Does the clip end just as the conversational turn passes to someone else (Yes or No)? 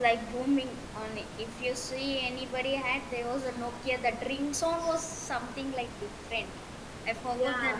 Yes